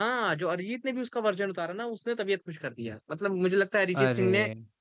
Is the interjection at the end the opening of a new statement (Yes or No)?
No